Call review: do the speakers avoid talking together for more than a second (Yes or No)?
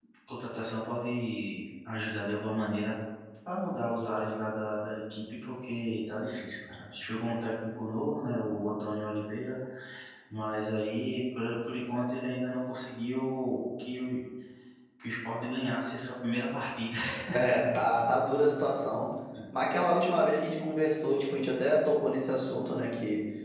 Yes